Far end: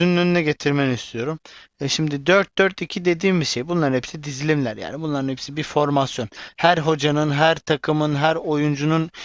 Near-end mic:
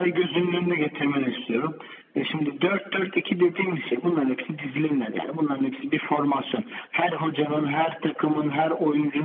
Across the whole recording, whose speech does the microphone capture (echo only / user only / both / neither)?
echo only